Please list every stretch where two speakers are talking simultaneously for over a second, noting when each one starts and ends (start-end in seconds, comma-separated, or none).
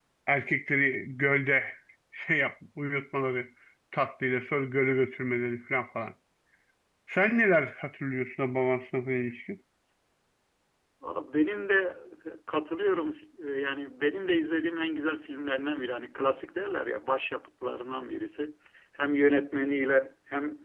none